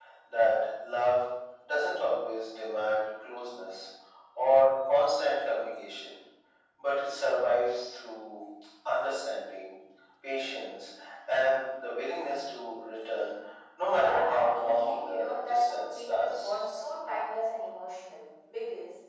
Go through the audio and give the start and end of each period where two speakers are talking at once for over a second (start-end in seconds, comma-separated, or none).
13.9-16.6